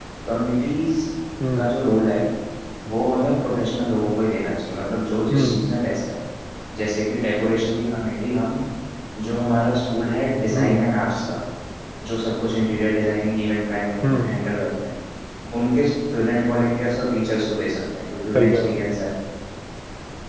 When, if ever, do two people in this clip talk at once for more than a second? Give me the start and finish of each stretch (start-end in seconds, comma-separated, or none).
none